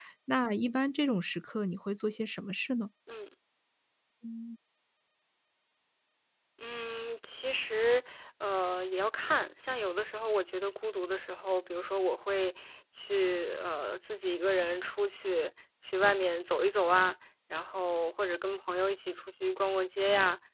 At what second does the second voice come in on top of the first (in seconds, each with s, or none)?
none